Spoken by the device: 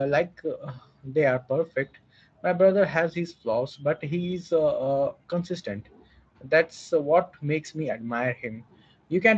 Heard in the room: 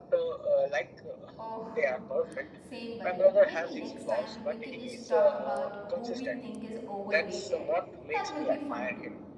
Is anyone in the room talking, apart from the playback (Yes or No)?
Yes